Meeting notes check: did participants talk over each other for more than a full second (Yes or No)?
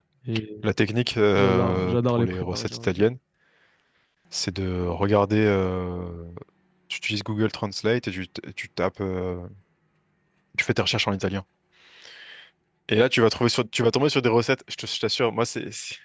Yes